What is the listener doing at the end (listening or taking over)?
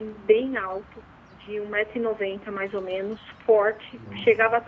listening